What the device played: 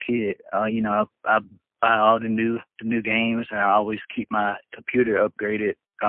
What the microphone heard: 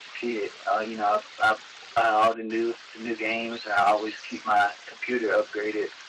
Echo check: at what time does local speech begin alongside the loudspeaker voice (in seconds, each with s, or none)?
none